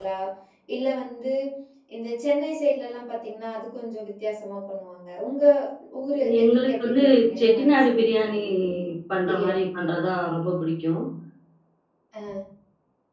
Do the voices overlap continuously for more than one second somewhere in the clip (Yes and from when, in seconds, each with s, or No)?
Yes, from 6.4 s